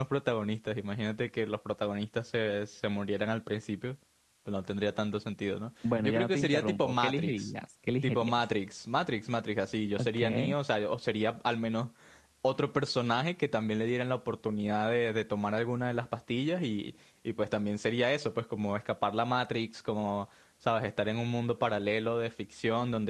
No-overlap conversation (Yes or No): No